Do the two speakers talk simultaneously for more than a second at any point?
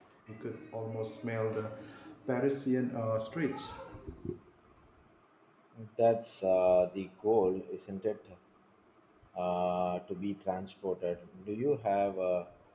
No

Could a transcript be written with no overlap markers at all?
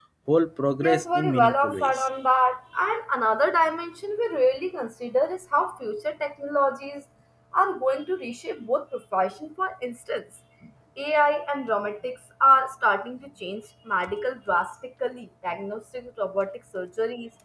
No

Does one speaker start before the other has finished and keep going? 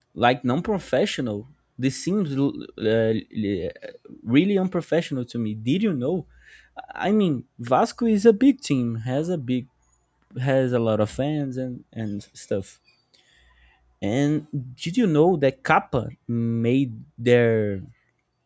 No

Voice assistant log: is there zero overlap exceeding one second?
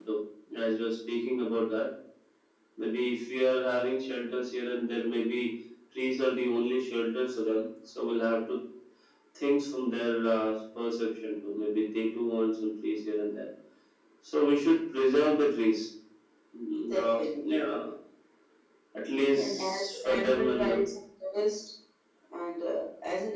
No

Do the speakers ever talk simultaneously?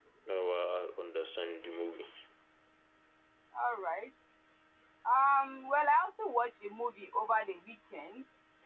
No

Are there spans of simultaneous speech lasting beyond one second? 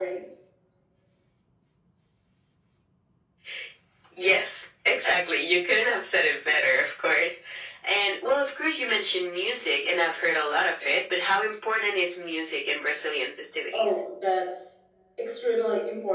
No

